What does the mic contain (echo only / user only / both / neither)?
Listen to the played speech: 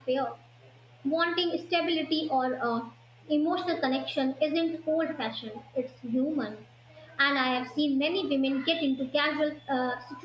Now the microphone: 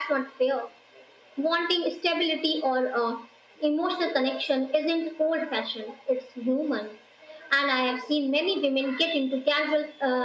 echo only